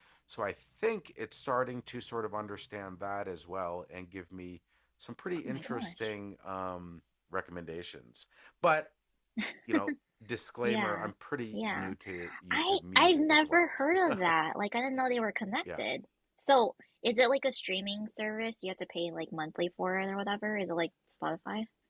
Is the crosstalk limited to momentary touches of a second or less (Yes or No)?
No